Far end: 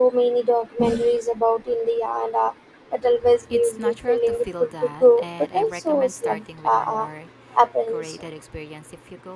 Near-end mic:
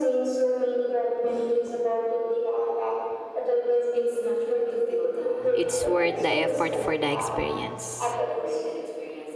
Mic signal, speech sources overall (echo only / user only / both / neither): both